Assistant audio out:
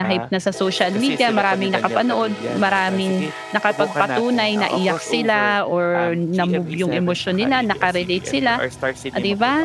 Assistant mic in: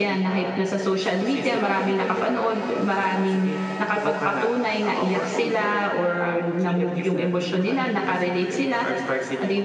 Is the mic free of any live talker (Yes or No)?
Yes